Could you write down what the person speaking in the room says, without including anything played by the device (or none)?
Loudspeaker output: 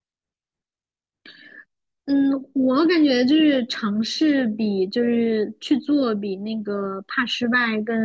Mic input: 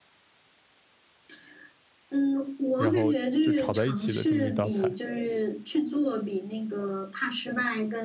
然后就炒在一起的这么一道菜。